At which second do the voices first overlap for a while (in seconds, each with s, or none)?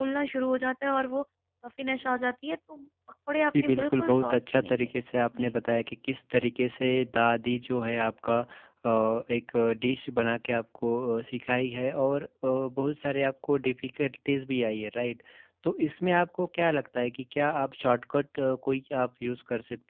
3.5 s